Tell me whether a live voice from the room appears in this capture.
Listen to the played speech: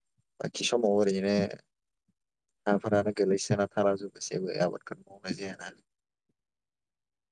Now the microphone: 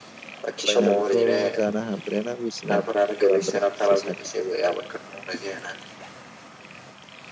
Yes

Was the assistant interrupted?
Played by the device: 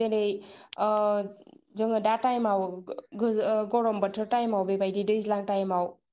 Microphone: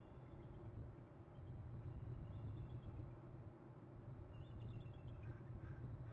No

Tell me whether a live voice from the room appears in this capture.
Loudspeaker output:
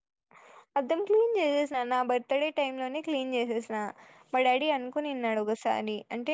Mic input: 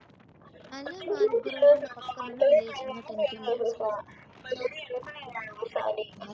Yes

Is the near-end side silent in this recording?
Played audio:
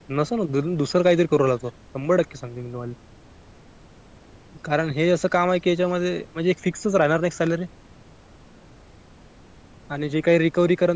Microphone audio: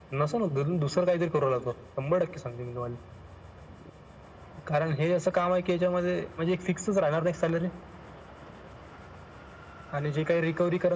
Yes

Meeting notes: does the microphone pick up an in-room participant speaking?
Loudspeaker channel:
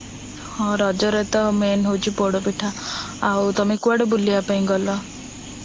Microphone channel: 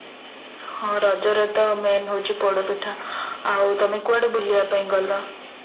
No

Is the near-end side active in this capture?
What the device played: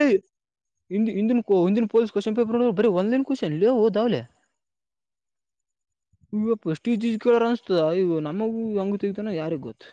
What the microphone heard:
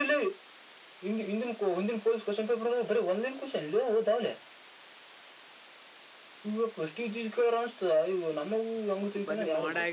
Yes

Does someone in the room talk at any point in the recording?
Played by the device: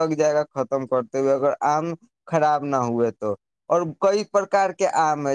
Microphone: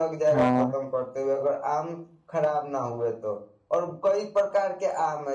Yes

